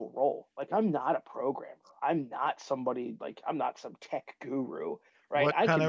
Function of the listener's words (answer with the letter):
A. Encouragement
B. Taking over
B